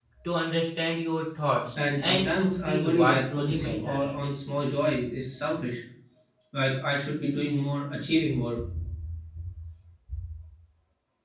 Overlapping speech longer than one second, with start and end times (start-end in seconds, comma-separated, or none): 2.0-4.1